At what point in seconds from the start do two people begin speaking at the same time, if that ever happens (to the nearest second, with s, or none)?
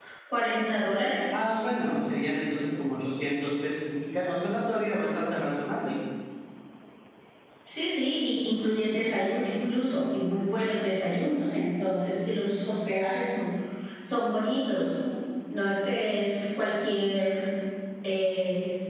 none